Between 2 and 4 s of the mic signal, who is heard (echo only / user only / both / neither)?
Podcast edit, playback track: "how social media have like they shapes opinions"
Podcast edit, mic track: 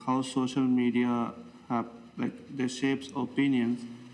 echo only